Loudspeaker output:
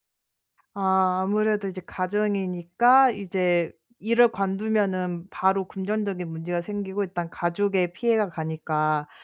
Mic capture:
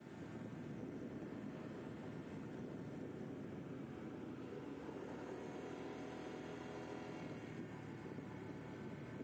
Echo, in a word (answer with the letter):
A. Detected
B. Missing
B